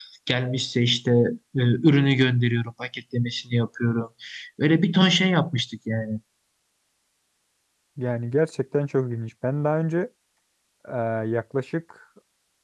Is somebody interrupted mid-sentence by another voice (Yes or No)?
No